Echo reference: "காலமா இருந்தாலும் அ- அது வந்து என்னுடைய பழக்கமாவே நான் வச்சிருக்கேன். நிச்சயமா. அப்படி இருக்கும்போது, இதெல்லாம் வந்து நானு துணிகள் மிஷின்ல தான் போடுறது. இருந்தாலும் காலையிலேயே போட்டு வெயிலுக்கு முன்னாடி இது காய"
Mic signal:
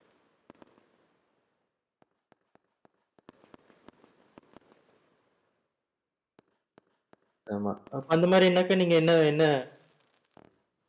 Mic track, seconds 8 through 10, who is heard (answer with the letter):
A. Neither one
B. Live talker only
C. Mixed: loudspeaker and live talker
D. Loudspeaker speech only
B